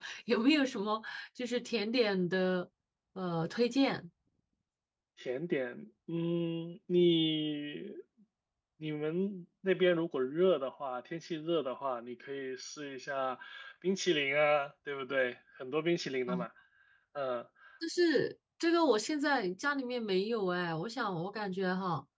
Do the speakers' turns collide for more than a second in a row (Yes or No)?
No